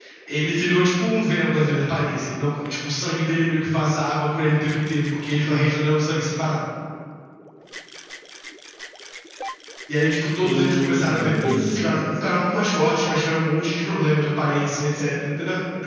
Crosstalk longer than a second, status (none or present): present